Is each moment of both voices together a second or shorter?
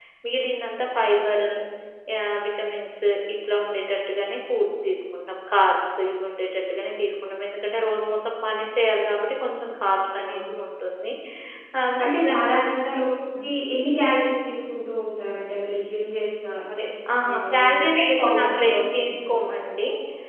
No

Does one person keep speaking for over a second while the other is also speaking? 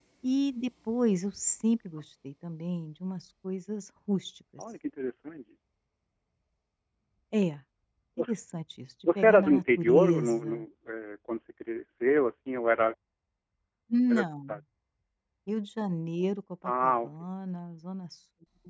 Yes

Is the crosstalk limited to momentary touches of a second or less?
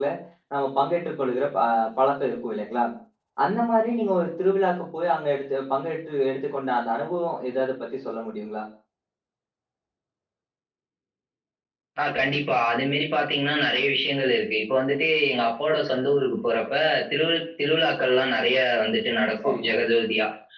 Yes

